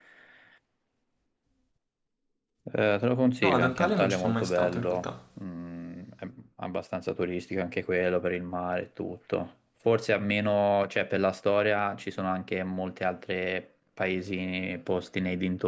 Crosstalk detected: Yes, from 3.4 s

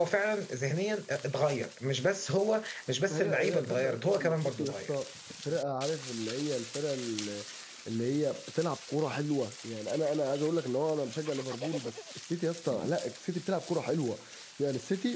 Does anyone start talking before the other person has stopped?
Yes, from 3.1 s

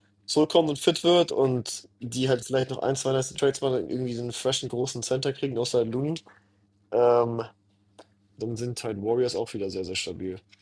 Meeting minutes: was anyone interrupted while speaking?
No

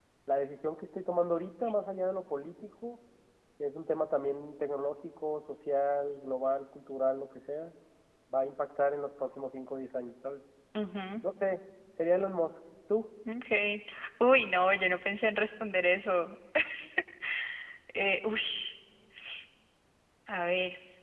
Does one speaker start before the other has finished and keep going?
No

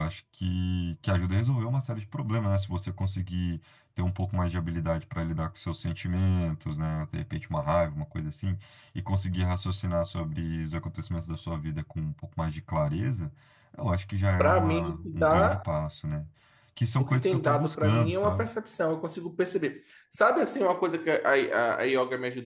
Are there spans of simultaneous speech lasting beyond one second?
Yes, from 14.4 s

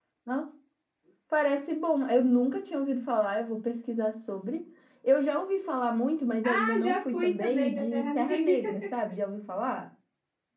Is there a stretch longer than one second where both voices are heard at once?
Yes, from 6.4 s

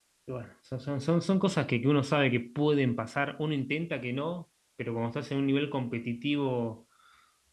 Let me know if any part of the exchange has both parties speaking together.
No

